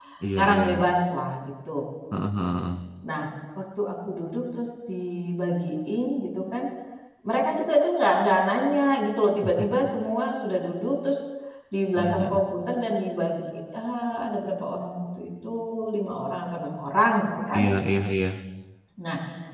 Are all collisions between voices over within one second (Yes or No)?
Yes